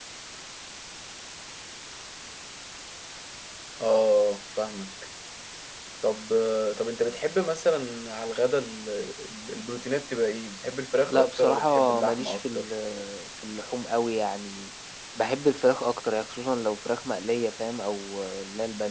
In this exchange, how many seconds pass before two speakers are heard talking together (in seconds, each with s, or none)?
11.0 s